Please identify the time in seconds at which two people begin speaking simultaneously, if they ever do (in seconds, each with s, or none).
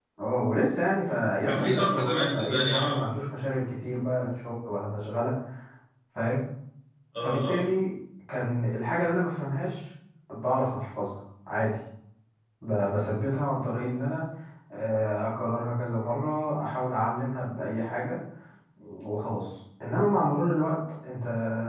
1.4 s